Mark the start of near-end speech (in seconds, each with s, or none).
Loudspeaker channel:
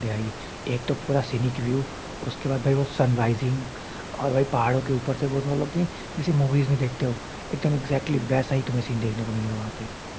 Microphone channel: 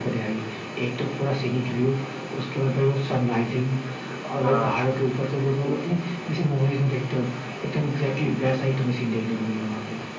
4.4 s